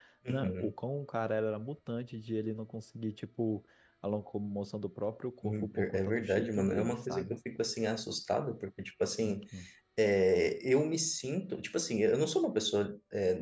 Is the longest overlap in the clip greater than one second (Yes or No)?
Yes